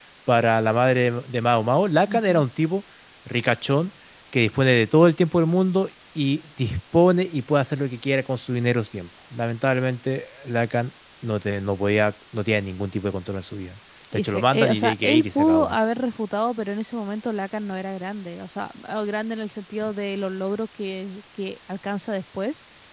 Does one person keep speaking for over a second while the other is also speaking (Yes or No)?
Yes